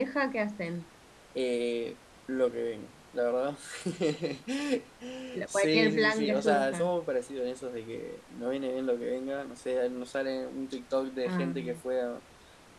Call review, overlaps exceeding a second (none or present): present